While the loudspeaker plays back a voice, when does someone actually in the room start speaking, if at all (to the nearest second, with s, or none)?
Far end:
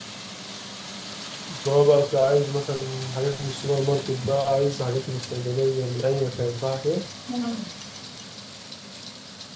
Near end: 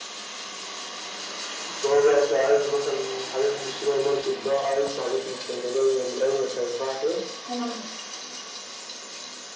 none